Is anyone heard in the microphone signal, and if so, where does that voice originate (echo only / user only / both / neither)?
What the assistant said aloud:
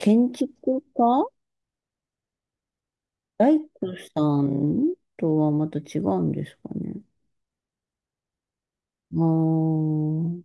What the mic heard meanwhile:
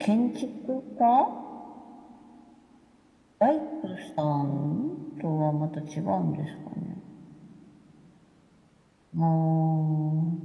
echo only